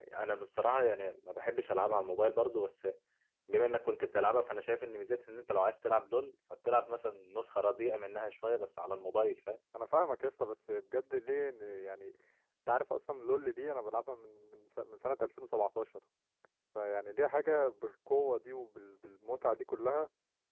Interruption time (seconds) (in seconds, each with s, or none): none